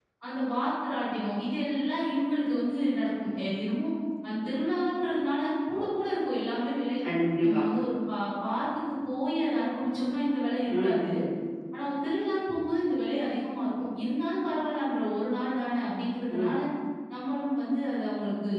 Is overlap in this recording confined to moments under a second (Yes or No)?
Yes